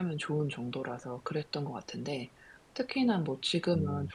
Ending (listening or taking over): listening